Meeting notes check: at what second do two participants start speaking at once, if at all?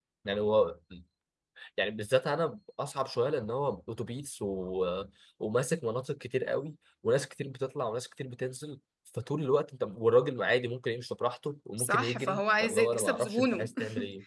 11.8 s

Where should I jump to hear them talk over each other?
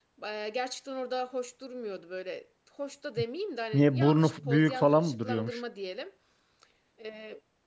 3.7 s

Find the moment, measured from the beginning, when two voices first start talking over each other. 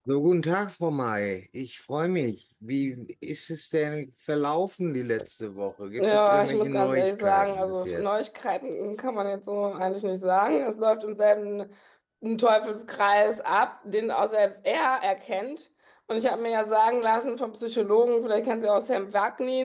6.0 s

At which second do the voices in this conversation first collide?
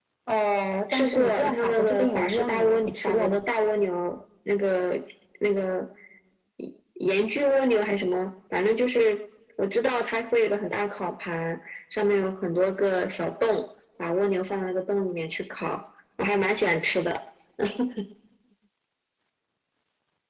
0.9 s

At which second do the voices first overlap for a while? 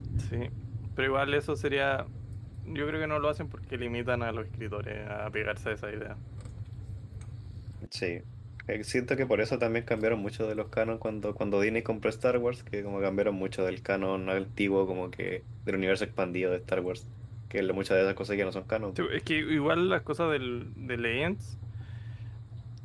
none

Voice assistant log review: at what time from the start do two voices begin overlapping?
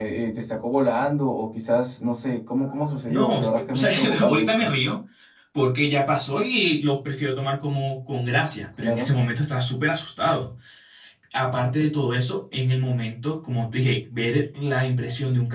3.0 s

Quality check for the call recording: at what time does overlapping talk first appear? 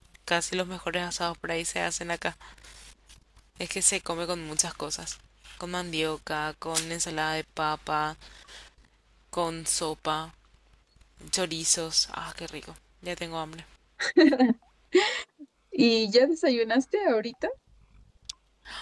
none

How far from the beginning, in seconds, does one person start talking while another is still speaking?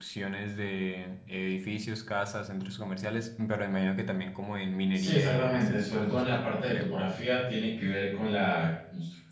4.9 s

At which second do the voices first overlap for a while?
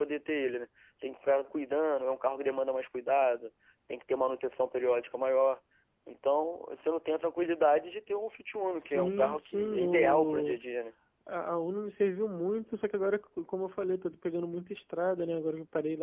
8.8 s

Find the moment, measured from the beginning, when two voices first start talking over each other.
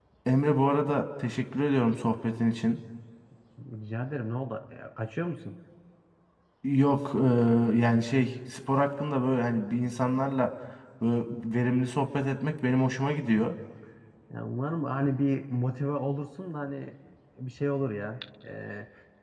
none

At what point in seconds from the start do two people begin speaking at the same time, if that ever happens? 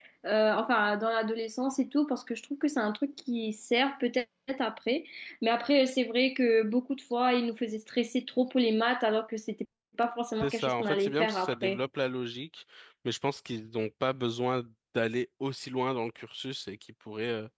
10.4 s

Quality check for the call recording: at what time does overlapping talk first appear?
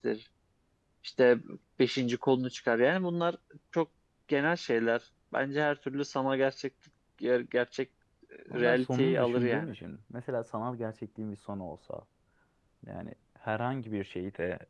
8.5 s

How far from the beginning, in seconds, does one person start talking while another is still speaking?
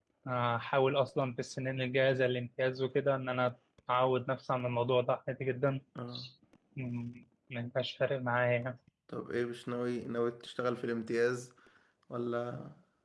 none

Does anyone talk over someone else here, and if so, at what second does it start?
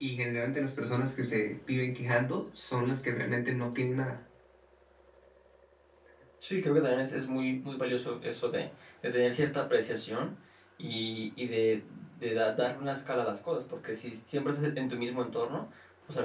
none

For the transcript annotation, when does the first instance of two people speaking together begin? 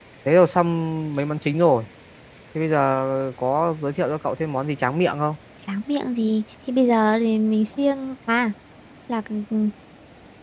none

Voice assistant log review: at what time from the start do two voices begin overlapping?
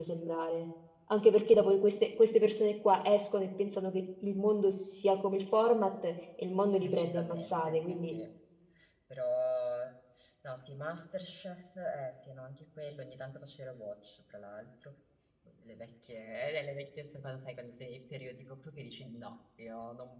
6.8 s

